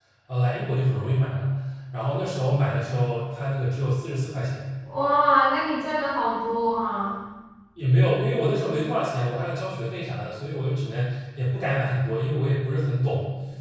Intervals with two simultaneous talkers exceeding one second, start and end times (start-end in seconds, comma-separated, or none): none